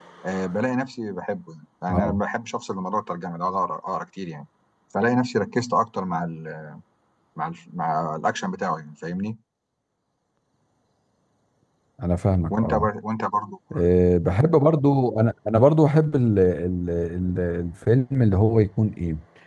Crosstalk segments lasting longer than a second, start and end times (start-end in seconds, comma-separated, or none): none